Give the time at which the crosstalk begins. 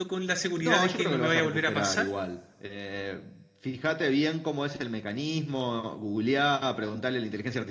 0.6 s

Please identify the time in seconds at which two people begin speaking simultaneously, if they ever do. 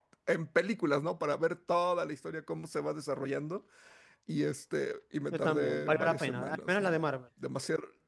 5.3 s

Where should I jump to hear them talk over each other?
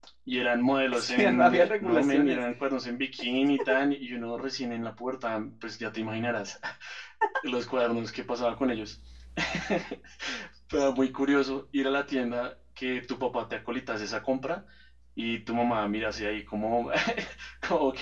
0.9 s

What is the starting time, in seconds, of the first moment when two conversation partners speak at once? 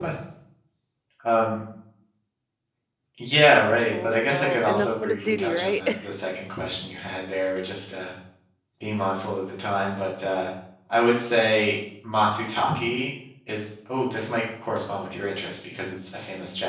3.9 s

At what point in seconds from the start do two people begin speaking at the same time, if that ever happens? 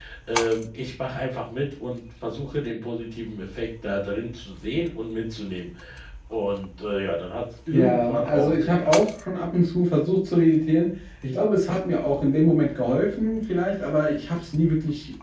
7.7 s

